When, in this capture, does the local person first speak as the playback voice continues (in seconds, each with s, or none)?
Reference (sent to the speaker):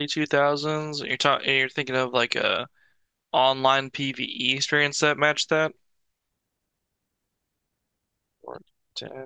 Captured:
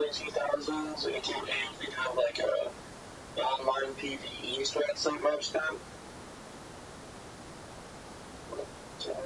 none